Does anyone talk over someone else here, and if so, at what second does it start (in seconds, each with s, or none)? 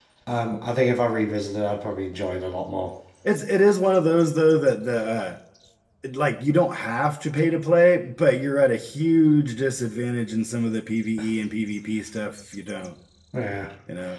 none